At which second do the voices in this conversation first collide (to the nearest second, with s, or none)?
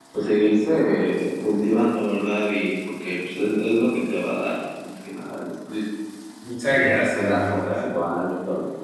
7 s